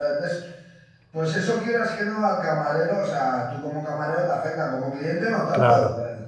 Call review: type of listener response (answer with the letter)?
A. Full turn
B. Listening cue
A